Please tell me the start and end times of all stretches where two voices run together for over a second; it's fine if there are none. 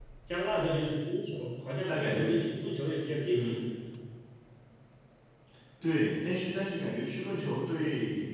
none

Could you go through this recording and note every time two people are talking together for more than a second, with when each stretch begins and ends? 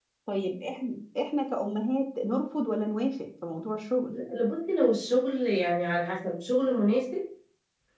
none

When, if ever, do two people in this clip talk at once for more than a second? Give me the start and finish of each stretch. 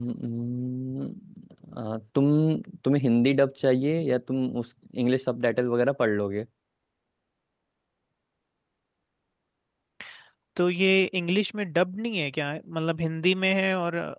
none

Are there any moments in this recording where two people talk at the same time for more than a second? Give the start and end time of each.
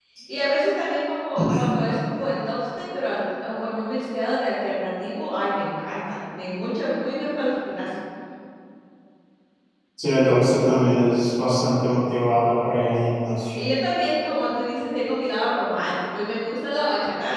none

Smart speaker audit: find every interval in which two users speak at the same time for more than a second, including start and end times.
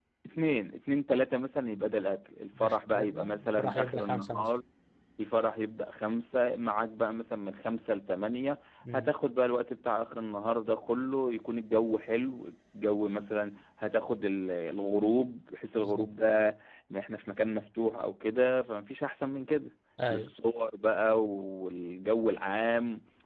2.6-4.5

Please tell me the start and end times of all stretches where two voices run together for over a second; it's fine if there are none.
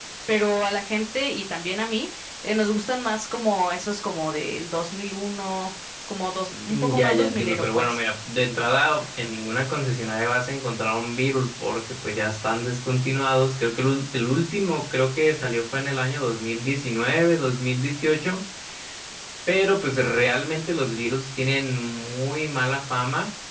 6.7-8.0

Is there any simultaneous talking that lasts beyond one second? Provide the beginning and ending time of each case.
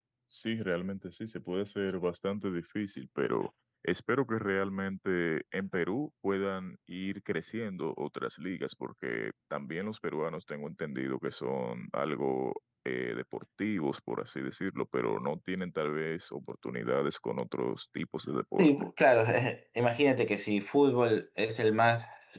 none

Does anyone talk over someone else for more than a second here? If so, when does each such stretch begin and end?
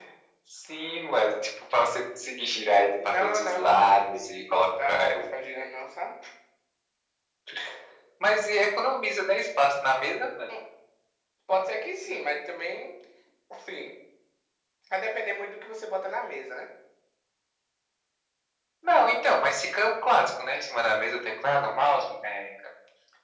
3.0-5.2

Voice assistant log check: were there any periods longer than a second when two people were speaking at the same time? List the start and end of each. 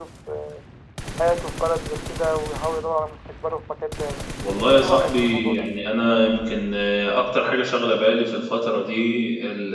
4.4-5.7

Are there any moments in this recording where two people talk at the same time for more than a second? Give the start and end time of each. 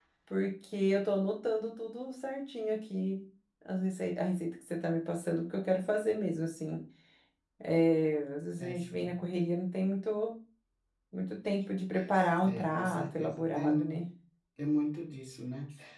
12.4-14.0

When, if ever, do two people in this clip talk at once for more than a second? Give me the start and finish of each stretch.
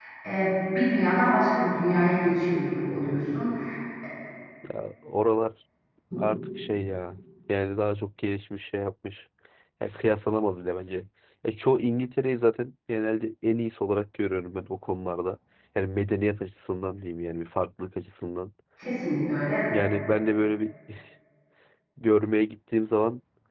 none

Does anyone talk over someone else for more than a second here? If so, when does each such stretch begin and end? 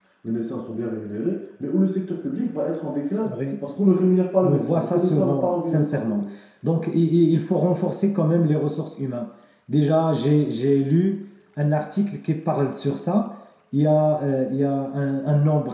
4.4-6.2

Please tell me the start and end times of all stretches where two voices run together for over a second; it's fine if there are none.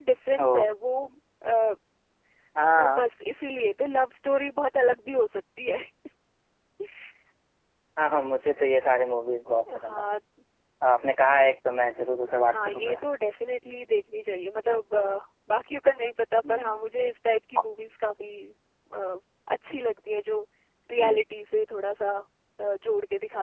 none

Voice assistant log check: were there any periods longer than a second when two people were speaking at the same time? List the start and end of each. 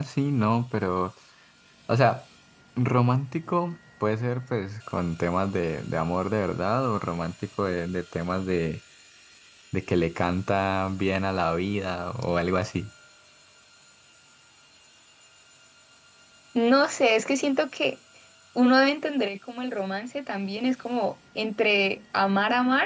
none

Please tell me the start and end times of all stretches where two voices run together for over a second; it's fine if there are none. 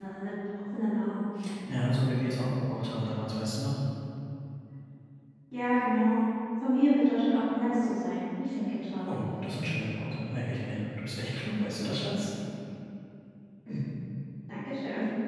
none

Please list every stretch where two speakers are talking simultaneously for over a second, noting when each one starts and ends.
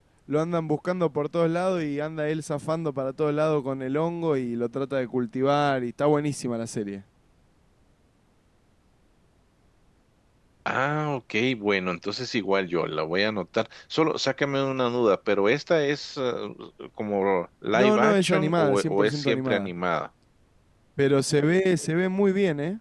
17.7-19.7

